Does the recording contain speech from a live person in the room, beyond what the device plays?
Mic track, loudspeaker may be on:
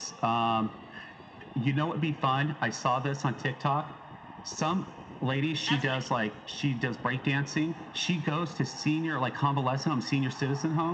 Yes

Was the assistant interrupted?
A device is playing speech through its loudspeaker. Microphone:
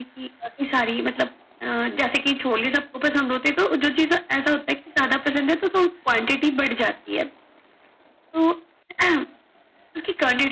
No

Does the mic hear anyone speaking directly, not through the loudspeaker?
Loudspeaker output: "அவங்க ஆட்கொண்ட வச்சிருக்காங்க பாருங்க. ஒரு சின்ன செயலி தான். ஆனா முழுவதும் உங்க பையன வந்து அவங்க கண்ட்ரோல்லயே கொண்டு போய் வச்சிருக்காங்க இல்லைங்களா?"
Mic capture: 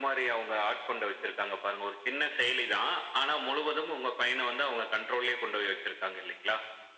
No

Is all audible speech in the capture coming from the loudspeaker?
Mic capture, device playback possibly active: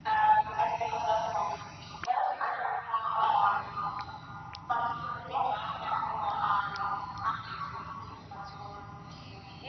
Yes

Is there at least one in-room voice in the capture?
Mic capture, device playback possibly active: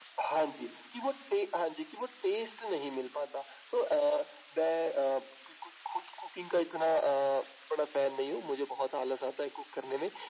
No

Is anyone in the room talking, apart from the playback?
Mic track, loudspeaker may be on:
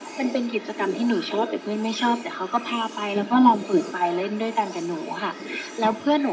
No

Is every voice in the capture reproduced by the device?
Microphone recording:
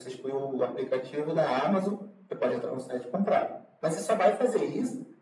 Yes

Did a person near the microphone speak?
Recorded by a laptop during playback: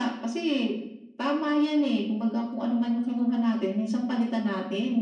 No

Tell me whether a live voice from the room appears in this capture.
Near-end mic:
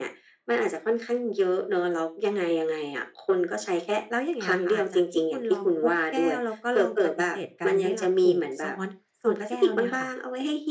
Yes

